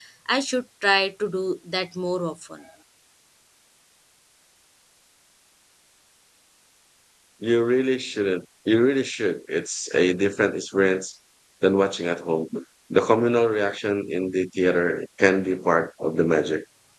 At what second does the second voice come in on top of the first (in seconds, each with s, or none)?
none